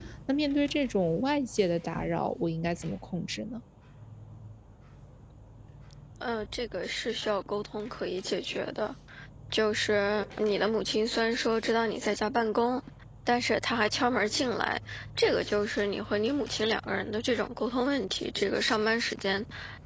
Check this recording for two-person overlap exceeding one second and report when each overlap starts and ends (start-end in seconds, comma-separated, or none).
none